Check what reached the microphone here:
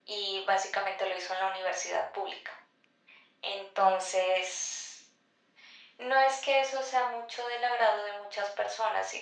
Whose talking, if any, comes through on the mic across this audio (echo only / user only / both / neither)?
echo only